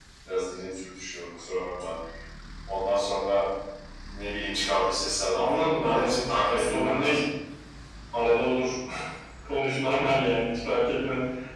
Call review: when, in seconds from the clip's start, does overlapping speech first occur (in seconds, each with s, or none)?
5.3 s